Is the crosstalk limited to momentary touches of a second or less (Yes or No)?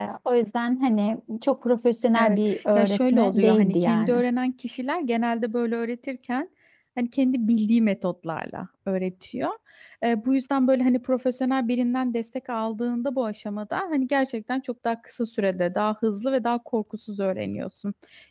No